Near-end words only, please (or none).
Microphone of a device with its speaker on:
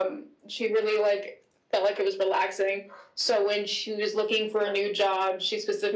none